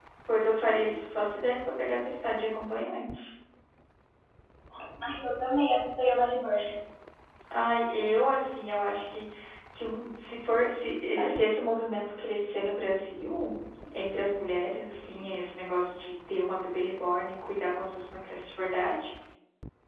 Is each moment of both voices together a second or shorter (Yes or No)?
Yes